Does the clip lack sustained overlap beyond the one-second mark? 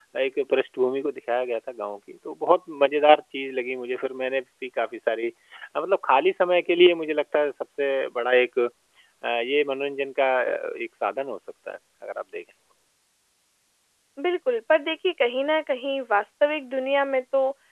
Yes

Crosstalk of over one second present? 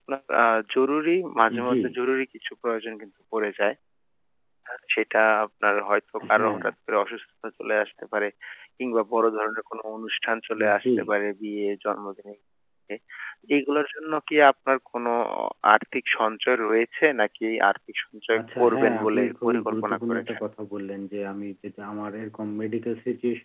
Yes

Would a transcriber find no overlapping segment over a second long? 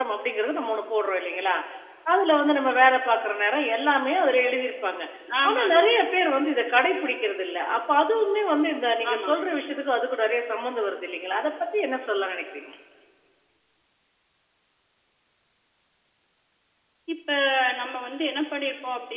Yes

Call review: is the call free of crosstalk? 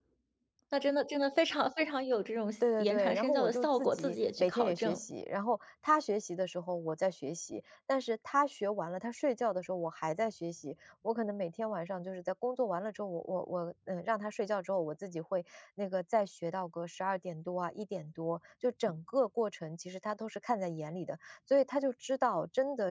No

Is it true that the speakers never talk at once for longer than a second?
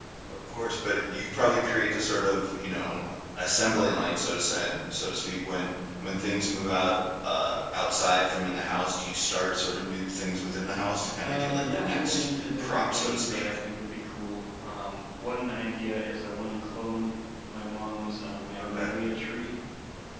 No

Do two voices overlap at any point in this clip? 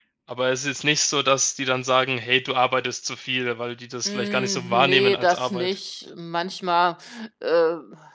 Yes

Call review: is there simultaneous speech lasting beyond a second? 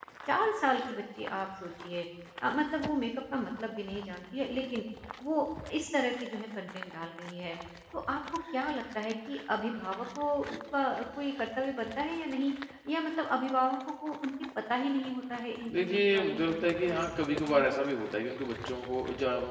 Yes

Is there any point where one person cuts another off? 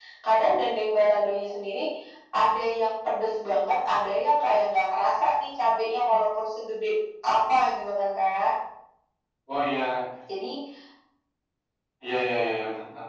No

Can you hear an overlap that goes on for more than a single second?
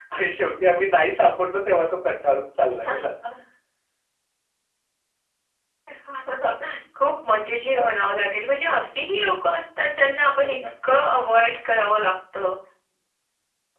No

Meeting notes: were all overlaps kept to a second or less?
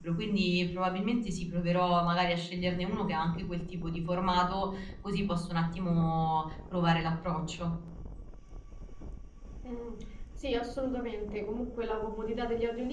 Yes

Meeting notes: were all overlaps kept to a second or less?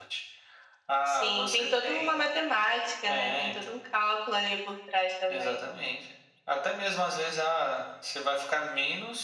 No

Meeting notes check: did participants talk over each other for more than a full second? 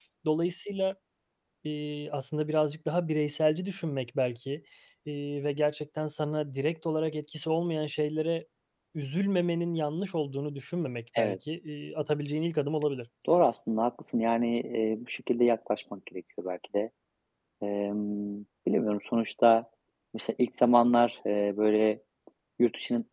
No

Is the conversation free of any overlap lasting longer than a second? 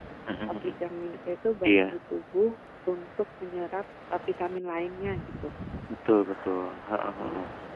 Yes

